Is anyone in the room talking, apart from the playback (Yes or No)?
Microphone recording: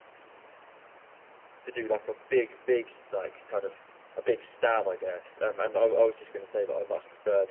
Yes